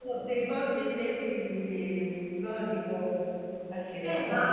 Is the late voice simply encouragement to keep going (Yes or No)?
No